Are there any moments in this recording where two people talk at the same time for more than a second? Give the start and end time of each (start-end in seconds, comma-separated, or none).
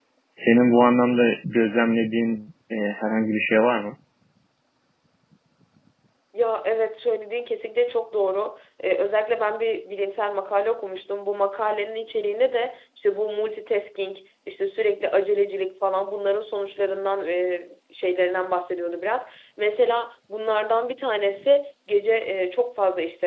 none